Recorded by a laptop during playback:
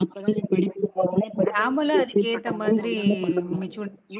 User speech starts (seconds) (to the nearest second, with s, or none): 2 s